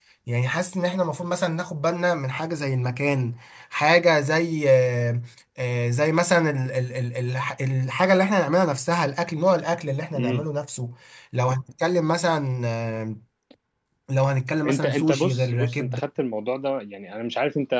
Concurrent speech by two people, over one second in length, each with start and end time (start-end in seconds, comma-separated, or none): 14.7-16.0